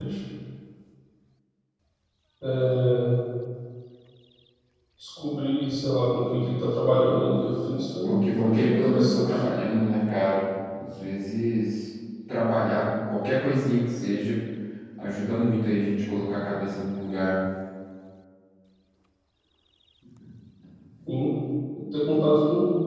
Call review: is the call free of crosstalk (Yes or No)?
No